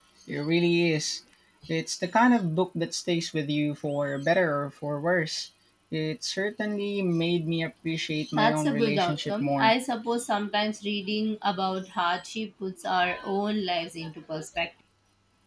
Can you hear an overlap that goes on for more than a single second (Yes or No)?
Yes